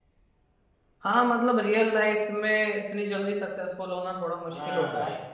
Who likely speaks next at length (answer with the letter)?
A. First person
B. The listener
B